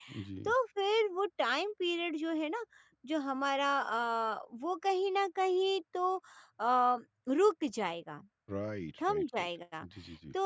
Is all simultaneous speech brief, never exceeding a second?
Yes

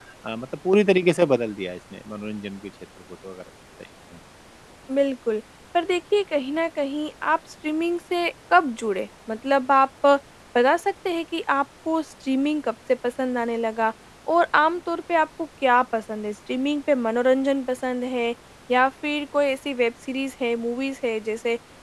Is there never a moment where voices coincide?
Yes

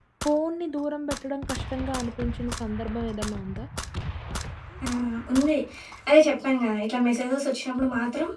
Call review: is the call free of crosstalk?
Yes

